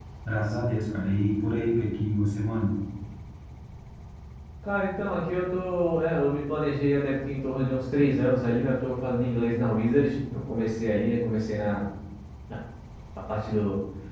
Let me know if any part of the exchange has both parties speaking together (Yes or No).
No